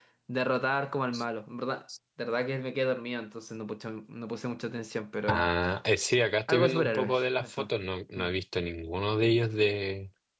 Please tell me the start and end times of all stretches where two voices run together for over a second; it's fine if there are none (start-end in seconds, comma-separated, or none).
6.5-7.7